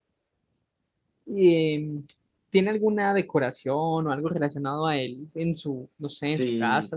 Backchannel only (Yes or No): No